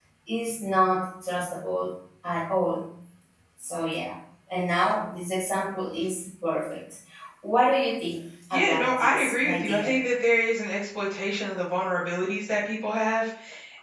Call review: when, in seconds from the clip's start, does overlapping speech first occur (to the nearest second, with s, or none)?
9 s